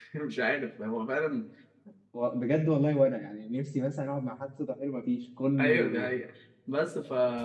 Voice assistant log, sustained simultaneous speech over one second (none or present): none